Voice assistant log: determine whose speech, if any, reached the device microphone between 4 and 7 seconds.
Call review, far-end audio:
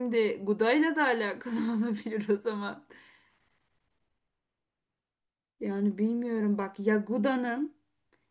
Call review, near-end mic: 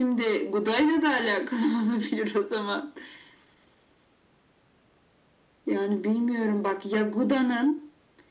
echo only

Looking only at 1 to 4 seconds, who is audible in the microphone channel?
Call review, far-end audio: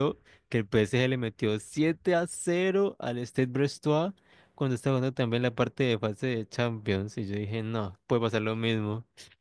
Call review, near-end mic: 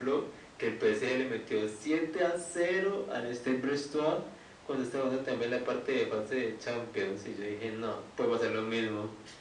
echo only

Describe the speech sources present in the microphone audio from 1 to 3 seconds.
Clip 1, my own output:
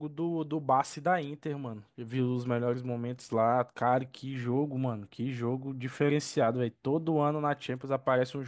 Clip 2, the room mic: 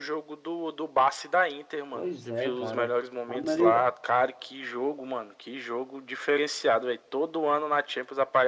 both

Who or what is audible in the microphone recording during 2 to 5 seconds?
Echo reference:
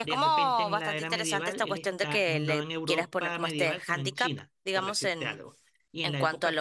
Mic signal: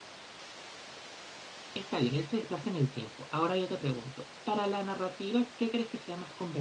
user only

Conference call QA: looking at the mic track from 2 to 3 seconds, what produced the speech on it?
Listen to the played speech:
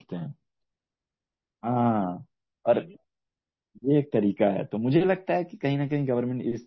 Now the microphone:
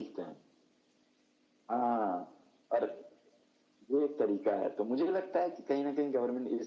echo only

